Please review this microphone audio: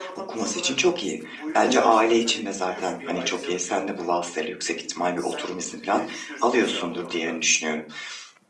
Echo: present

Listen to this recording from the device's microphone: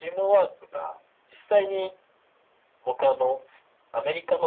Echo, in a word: present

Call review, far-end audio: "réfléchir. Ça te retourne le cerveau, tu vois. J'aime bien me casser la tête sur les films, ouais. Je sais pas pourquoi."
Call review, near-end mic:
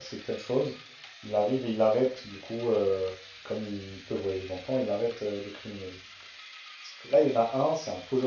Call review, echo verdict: none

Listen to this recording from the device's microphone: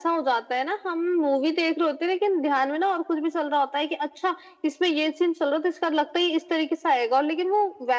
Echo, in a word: present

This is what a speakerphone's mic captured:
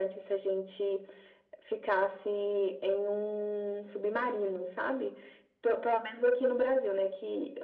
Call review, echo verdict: present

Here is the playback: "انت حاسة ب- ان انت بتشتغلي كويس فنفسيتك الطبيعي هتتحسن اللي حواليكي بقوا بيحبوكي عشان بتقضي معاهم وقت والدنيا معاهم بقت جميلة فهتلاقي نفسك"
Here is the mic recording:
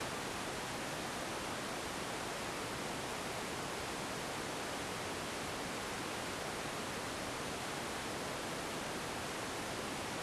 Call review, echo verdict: none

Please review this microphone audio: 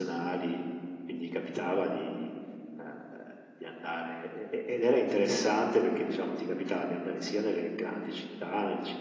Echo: present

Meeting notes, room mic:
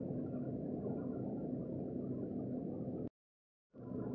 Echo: none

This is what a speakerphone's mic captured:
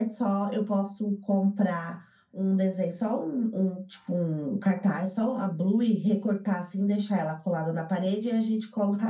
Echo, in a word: present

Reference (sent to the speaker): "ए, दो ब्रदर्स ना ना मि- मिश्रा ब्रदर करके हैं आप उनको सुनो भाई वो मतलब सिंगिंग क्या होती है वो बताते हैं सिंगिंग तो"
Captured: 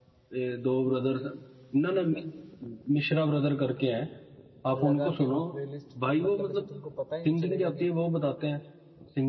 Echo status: present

